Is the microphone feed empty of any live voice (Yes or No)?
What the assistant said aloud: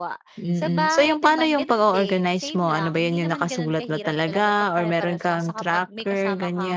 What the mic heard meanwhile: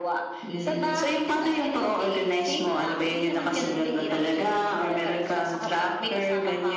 Yes